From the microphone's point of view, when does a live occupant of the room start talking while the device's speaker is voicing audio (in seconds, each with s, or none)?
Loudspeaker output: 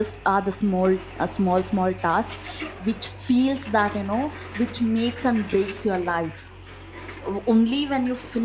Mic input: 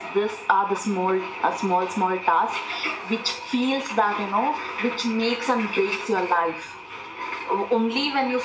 none